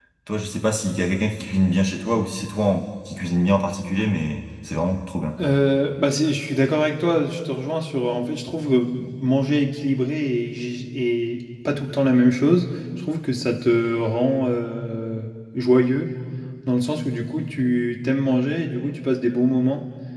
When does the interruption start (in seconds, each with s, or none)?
none